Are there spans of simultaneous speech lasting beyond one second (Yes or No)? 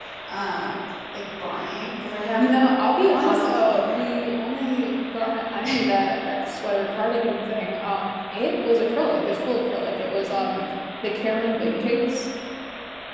Yes